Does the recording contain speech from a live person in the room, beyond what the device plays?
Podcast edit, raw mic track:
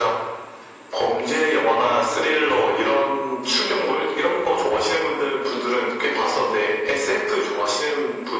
No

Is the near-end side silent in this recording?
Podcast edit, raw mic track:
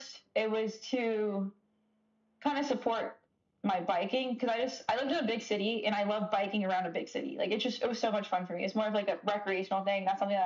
Yes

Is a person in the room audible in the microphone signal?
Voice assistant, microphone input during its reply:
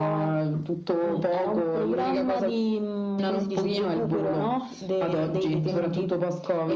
No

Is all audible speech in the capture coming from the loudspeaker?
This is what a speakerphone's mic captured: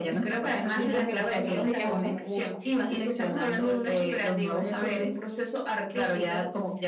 No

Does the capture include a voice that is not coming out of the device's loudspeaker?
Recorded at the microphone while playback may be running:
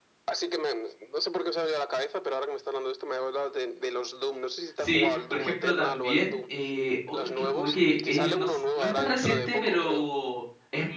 Yes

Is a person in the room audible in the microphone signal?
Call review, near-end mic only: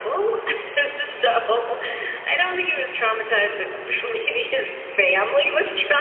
No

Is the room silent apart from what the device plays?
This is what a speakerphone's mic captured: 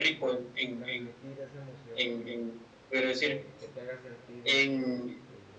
No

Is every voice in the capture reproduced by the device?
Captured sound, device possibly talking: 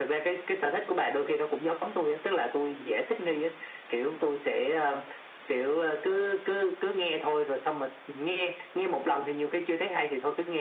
Yes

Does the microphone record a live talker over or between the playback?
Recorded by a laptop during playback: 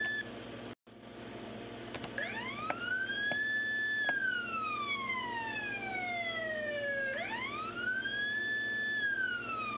No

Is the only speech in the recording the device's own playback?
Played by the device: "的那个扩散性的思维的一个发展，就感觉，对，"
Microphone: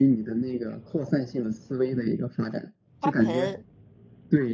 No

